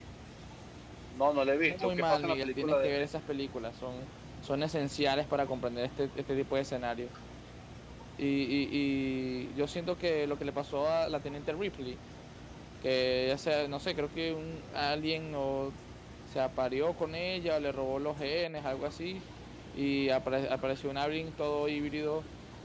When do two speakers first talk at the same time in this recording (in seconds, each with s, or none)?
1.6 s